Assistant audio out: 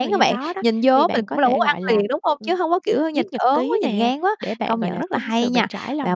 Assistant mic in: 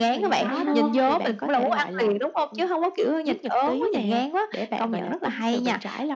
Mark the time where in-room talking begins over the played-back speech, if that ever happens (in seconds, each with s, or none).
0.3 s